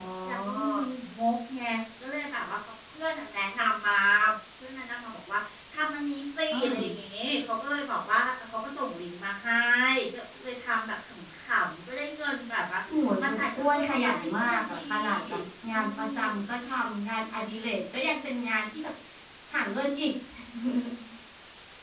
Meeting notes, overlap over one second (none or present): present